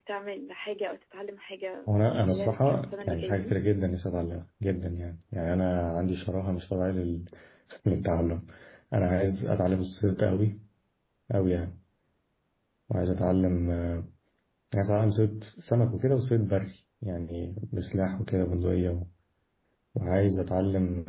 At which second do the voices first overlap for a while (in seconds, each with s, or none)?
2.3 s